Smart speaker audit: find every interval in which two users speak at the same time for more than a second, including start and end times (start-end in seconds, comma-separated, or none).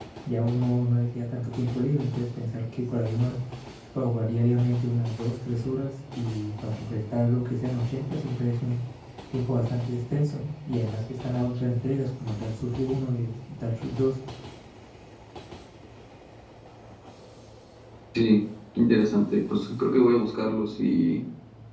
none